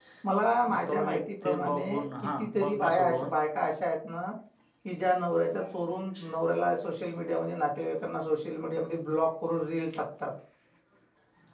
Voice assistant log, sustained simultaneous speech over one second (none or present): present